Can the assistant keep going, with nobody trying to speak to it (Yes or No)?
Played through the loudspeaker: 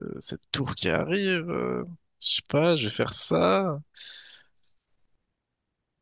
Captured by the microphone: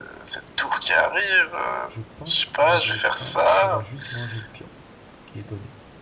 No